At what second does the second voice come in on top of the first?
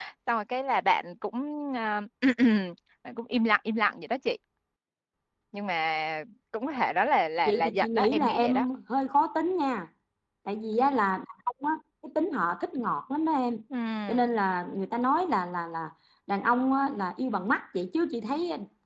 7.5 s

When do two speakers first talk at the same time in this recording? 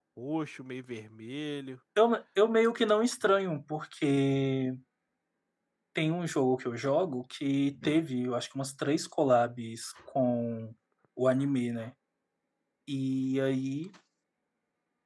none

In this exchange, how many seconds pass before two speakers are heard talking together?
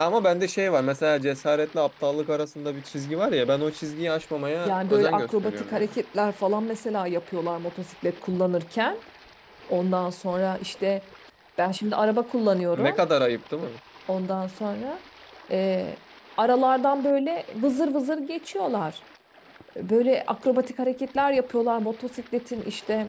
4.7 s

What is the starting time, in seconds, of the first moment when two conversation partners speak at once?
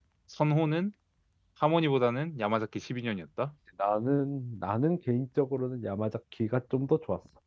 none

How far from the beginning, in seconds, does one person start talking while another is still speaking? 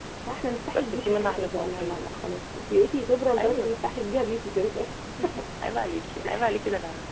0.8 s

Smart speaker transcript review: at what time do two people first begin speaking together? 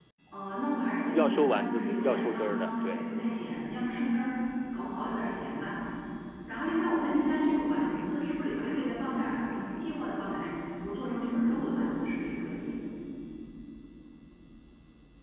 1.1 s

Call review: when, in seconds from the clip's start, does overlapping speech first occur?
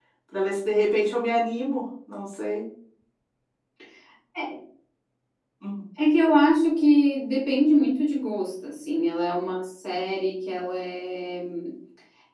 none

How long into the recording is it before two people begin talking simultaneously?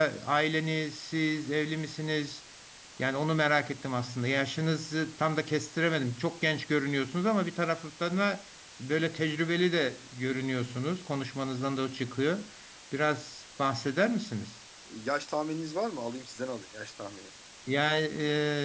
none

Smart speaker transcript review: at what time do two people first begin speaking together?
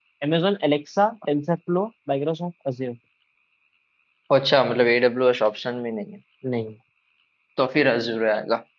none

